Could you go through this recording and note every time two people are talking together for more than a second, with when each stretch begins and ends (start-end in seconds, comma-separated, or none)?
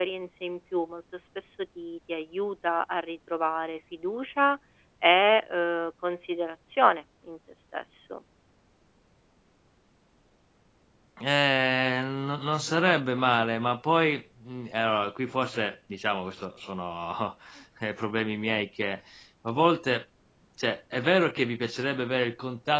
none